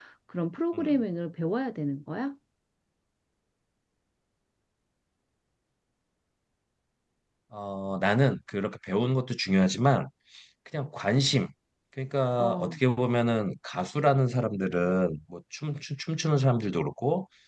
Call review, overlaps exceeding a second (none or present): none